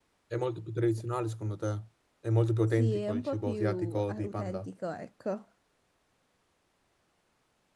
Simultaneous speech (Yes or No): Yes